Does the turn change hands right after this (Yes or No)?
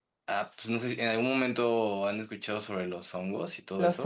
Yes